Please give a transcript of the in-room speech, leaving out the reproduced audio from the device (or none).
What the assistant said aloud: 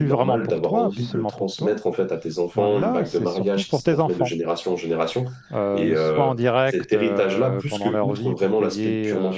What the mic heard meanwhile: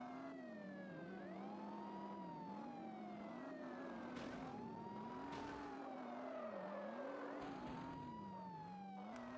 none